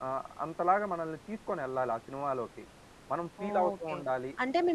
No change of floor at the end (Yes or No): No